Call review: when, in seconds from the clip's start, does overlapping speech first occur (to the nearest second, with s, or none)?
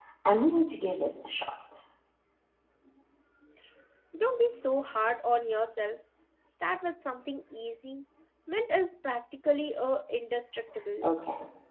none